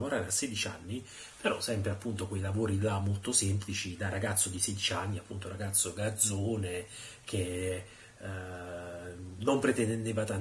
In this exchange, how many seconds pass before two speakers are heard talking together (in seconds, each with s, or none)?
none